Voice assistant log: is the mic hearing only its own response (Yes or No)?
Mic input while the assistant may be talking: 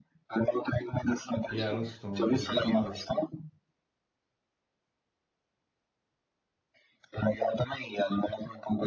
No